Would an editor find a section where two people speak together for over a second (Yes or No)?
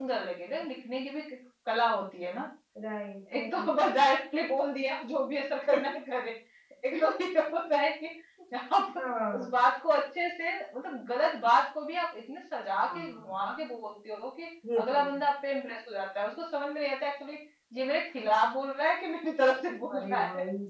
No